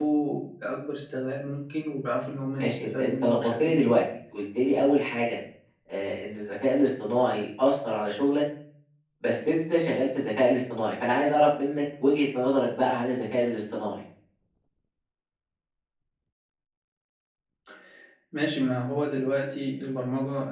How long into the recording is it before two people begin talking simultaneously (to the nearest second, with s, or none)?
3 s